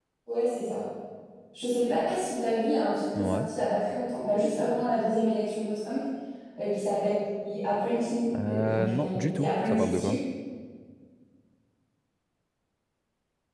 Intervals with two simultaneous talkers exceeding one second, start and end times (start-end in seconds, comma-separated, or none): 8.5-10.2